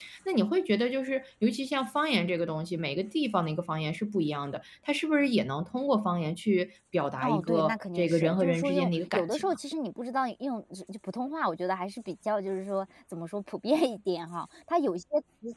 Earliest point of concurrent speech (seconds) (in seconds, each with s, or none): 7.2 s